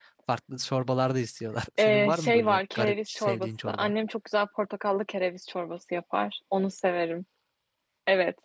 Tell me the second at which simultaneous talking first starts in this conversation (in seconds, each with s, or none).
1.8 s